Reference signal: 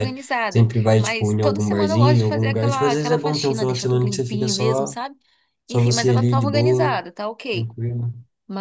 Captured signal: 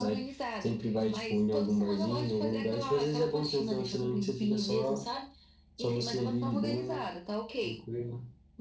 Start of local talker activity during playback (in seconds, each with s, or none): none